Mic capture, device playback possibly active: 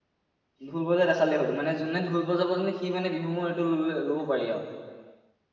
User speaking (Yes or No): Yes